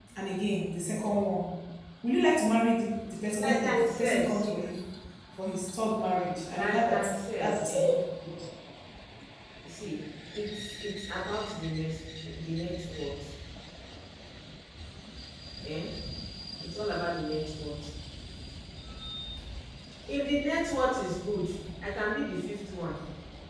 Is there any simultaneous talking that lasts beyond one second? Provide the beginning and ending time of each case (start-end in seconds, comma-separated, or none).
3.4-4.6, 6.5-7.7